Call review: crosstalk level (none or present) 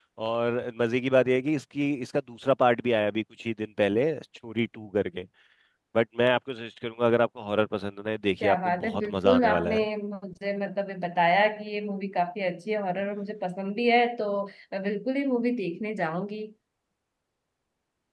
present